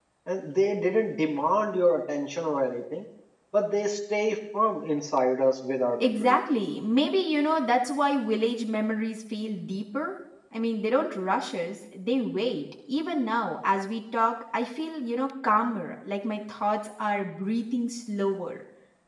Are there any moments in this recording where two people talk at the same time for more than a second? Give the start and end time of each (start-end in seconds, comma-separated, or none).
none